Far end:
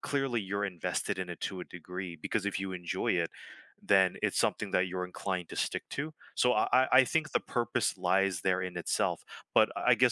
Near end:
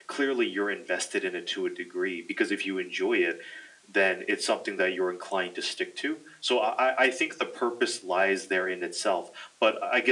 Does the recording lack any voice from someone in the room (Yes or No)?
Yes